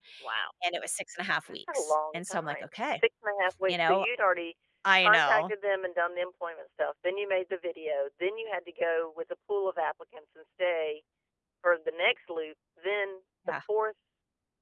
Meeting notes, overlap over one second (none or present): present